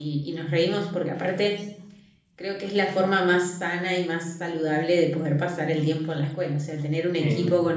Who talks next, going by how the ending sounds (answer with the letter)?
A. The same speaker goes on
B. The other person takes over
A